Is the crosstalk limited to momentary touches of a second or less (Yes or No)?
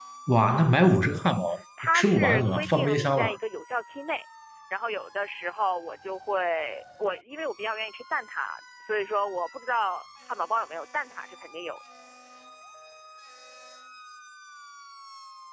No